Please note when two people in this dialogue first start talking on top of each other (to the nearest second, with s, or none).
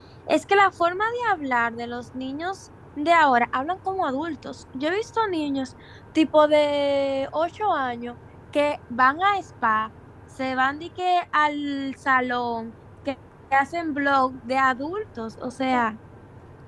none